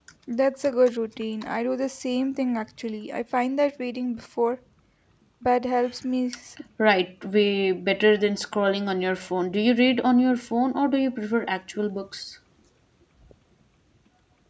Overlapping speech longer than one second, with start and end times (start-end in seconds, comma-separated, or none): none